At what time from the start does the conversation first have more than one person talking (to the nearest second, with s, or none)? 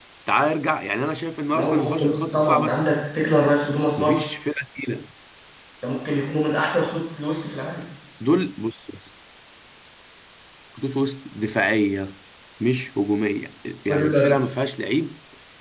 2 s